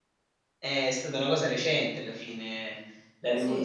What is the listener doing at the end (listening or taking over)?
listening